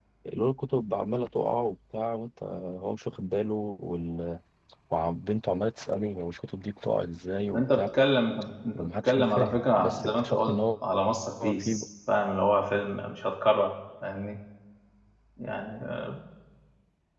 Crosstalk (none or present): present